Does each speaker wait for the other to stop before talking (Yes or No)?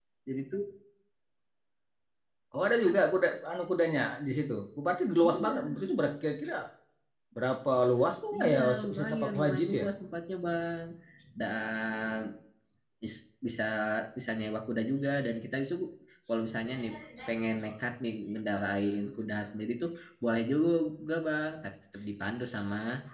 No